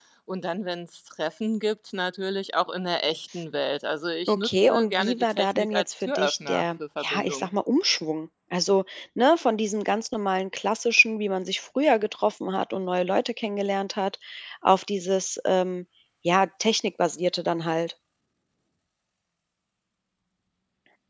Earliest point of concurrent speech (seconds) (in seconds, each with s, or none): 4.3 s